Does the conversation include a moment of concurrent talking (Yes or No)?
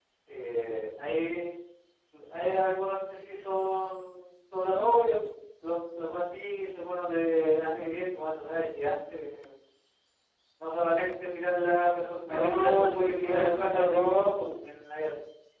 Yes